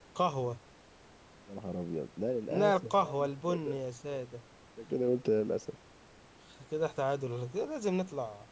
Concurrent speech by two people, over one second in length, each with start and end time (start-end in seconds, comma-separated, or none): 2.6-3.8